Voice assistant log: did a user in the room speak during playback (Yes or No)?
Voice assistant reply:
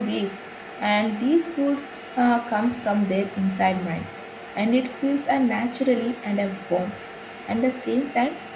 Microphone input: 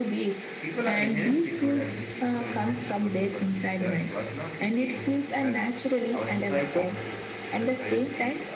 Yes